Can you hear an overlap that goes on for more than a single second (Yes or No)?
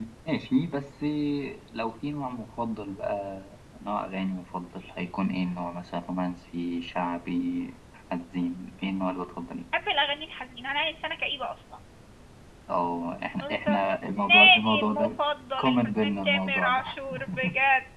Yes